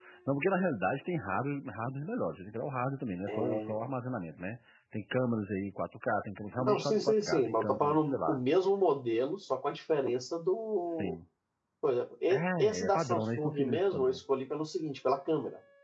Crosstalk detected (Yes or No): Yes